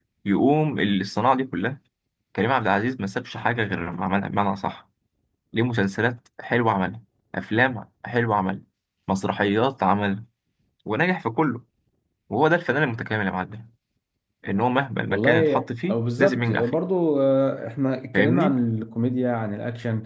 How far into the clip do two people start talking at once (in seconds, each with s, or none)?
15.1 s